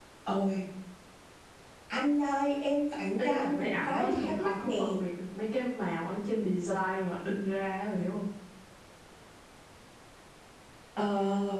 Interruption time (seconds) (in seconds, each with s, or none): 3.2 s